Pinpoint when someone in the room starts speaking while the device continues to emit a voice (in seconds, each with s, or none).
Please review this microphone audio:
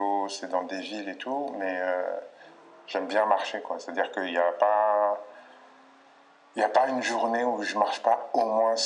none